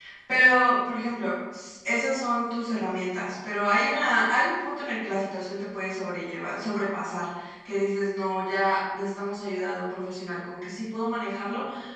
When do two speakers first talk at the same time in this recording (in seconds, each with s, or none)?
none